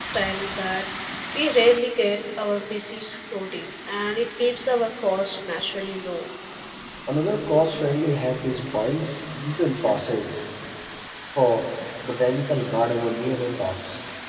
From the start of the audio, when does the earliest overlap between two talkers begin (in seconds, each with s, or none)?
none